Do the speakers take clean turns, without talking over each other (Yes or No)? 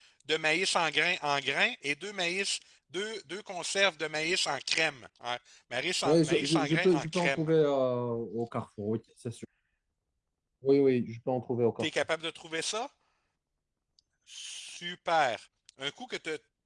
No